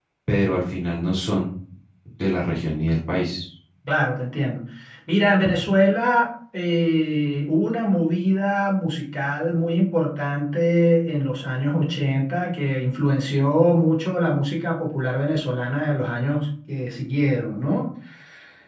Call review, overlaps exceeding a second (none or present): none